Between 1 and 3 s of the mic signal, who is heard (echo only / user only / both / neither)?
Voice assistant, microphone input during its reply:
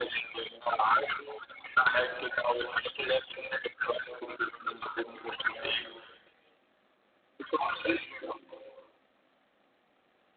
echo only